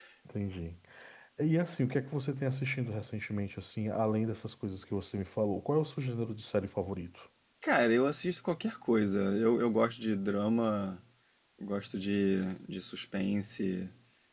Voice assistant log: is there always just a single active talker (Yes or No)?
Yes